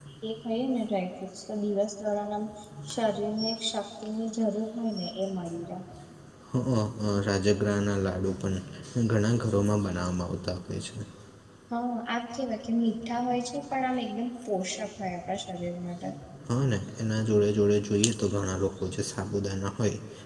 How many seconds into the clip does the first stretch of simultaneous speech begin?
none

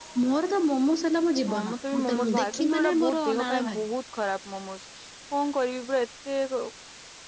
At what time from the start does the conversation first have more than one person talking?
1.5 s

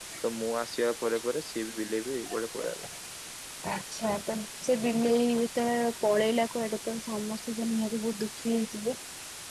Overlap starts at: none

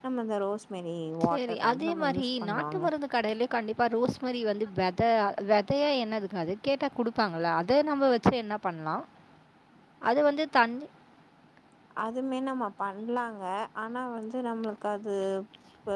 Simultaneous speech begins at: 1.2 s

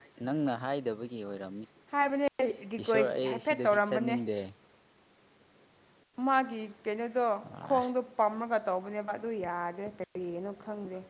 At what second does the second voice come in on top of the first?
2.8 s

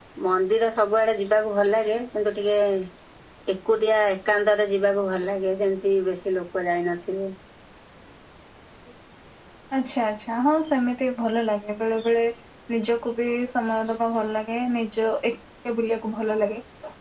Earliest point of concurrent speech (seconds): none

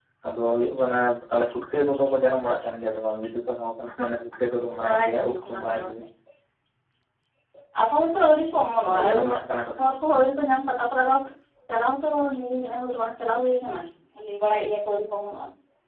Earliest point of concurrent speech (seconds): 4.6 s

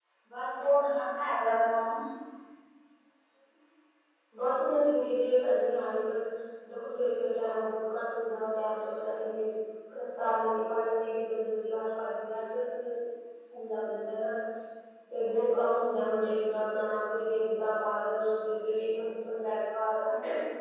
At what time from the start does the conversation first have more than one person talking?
none

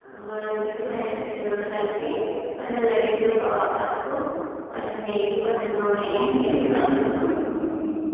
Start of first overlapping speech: 6.0 s

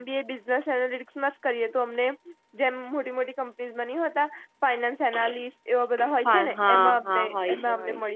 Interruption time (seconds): 6.2 s

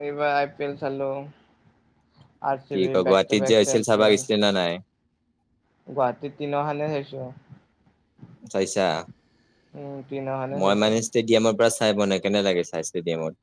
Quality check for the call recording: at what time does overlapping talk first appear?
2.7 s

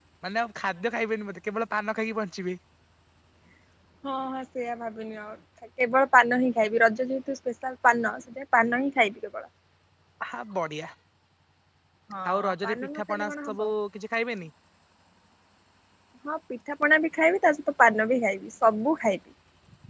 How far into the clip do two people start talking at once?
12.3 s

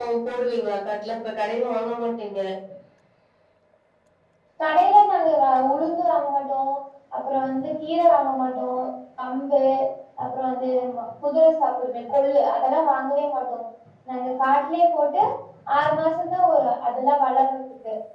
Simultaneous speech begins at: none

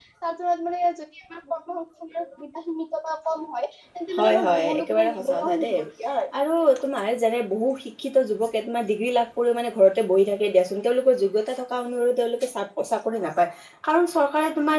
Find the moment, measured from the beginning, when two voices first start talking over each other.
4.1 s

